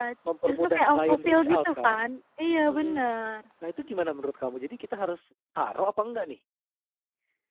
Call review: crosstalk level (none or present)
present